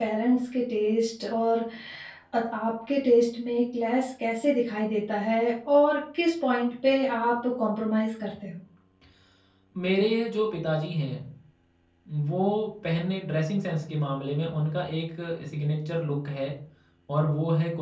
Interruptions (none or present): none